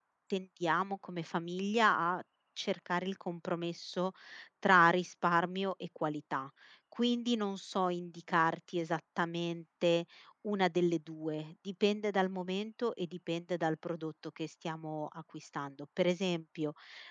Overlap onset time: none

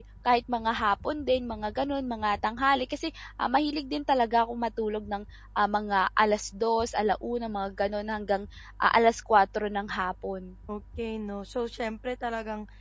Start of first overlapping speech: none

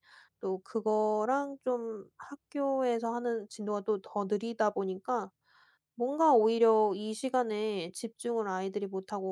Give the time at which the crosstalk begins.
none

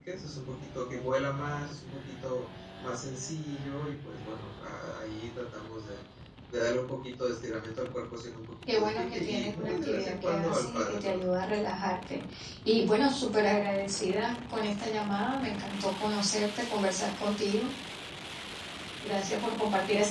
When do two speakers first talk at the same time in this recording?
8.7 s

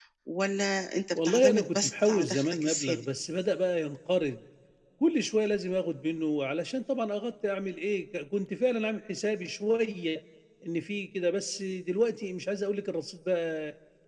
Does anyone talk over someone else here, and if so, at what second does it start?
1.2 s

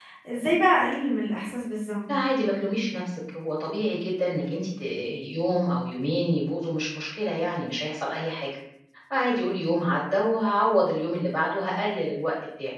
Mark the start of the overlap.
none

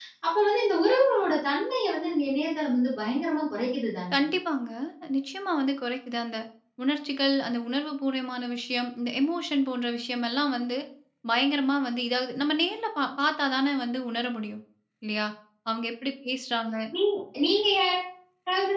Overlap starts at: none

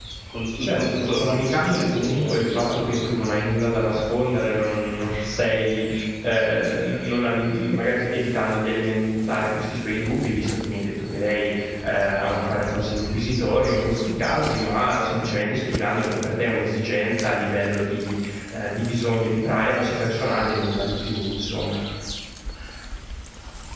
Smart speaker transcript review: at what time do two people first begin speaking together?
0.6 s

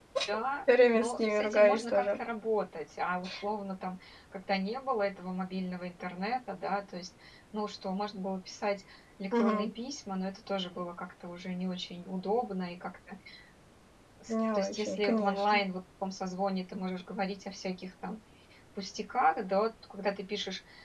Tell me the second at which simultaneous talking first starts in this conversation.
0.9 s

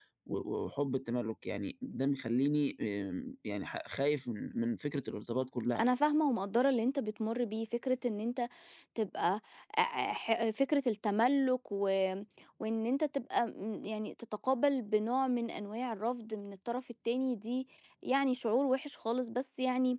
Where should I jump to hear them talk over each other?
none

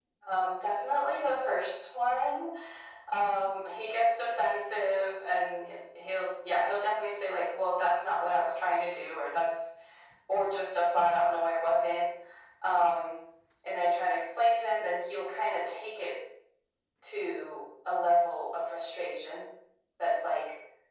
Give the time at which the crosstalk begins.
none

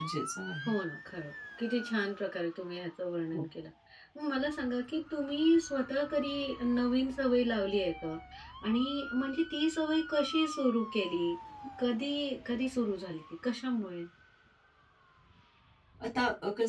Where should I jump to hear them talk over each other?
none

